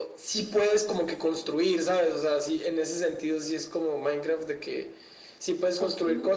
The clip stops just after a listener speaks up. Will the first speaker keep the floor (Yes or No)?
Yes